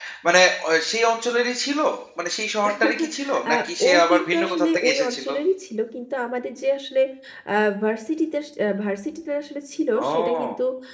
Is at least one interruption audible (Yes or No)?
Yes